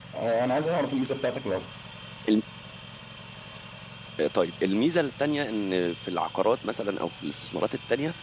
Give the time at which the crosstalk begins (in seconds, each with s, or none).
none